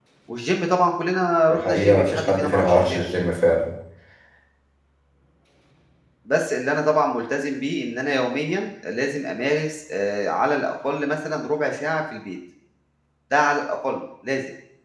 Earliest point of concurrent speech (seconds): 1.5 s

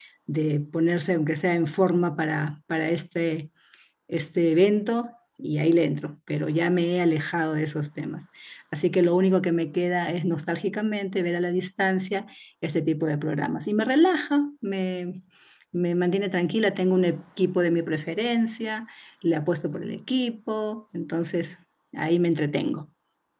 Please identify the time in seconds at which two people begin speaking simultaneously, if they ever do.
none

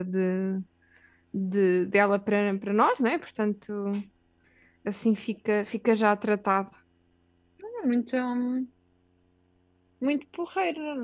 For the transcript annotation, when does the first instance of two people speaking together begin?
none

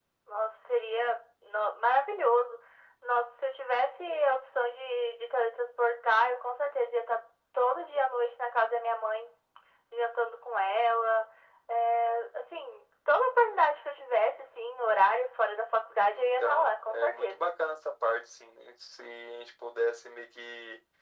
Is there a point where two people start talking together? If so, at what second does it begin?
16.1 s

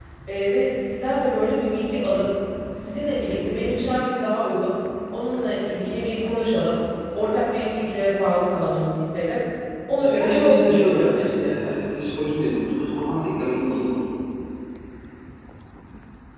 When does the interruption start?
10.0 s

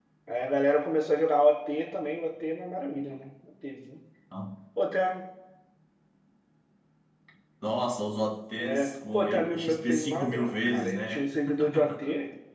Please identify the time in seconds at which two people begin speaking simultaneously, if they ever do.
8.6 s

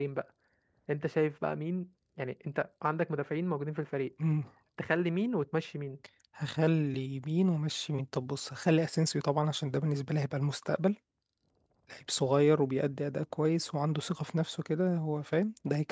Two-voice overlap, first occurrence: none

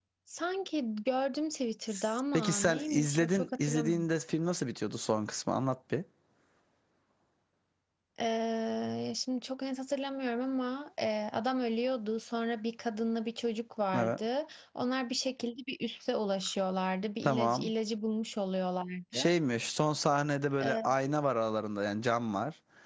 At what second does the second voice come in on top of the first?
2.3 s

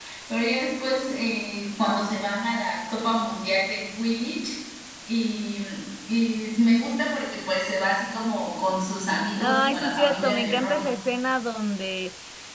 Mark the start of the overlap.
9.4 s

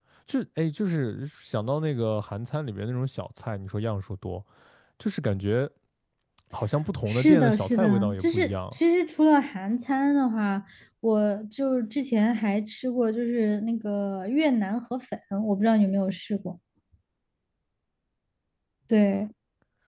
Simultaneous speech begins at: 7.1 s

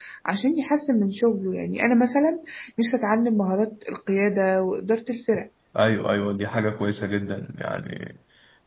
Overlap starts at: none

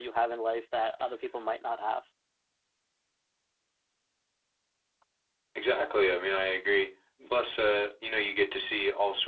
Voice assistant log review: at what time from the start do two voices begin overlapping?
none

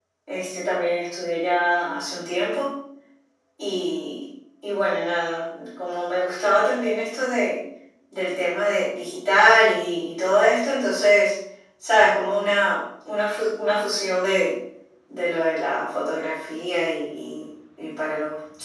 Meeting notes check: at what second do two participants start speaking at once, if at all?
none

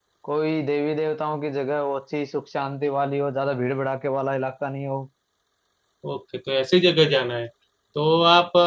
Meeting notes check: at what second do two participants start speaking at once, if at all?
none

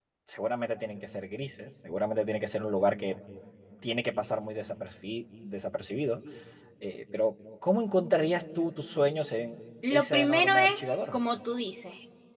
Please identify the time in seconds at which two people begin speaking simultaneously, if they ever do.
9.8 s

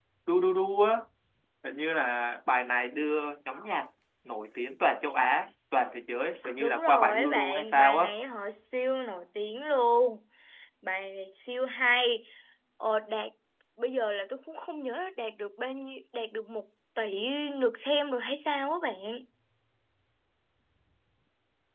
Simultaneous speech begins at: 6.6 s

